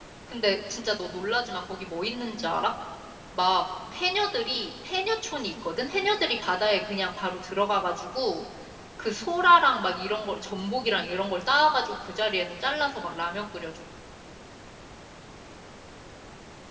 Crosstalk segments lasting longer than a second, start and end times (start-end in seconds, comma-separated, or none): none